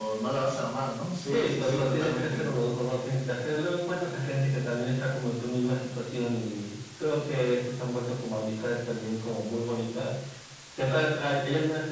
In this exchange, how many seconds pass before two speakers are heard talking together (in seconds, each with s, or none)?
1.2 s